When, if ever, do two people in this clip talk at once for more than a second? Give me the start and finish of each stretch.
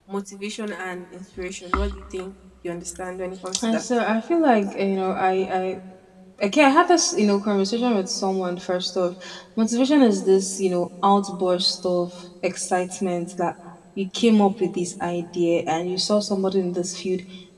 none

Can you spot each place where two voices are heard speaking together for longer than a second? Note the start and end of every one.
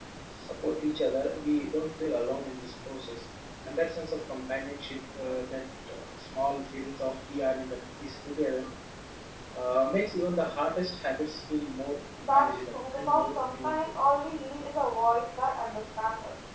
12.3-13.9

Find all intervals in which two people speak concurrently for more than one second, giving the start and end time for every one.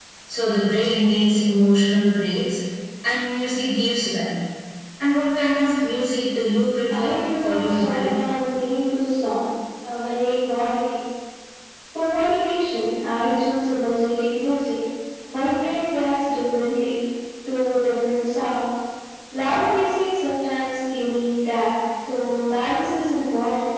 6.9-8.2

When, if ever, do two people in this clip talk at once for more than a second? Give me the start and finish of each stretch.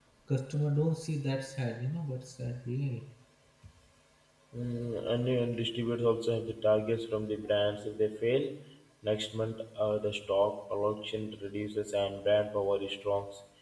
none

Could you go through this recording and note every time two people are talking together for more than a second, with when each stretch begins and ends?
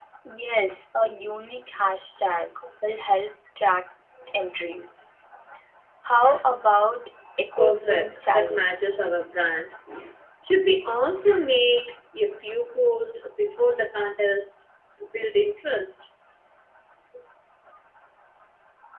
7.5-9.0

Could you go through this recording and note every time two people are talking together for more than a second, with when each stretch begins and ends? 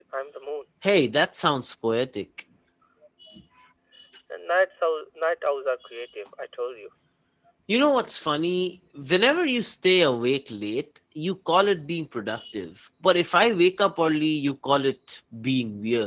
none

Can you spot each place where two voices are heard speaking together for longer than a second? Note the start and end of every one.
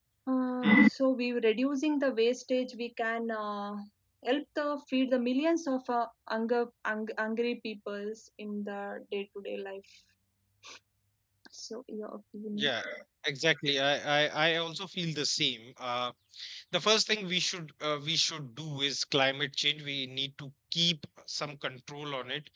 none

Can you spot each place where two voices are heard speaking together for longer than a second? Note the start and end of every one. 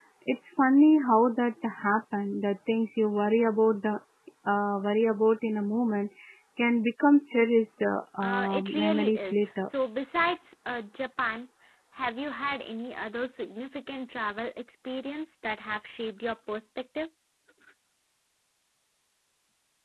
8.2-9.7

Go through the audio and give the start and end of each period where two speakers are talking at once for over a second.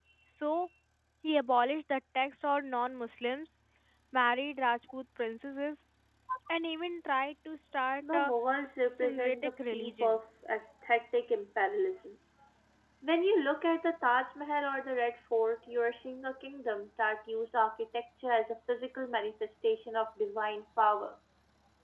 8.9-10.2

